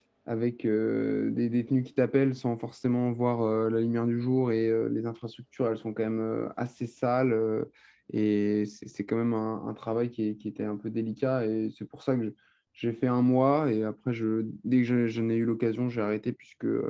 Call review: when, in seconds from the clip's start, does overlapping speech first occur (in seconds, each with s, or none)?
none